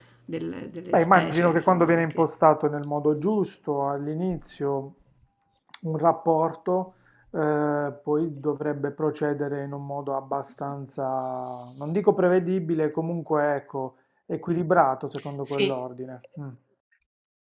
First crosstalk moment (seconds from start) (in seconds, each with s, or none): 0.9 s